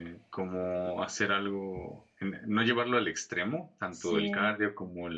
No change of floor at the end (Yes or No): Yes